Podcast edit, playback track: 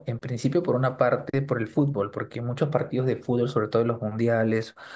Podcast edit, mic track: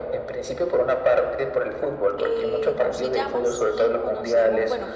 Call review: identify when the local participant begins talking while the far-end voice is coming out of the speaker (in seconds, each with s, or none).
2.2 s